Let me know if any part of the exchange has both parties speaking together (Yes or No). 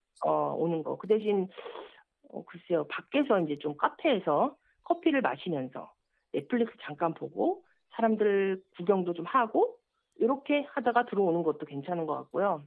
No